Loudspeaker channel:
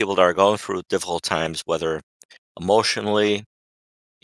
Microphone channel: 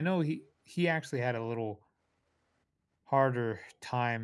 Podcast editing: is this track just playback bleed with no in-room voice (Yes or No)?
No